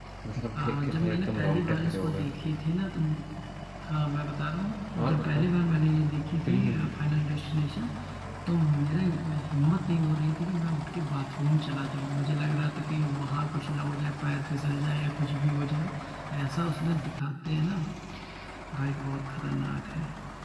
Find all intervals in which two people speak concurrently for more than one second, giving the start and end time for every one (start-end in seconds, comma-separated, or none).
0.5-2.3